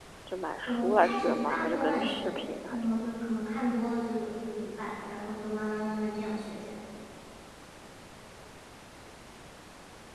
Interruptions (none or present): present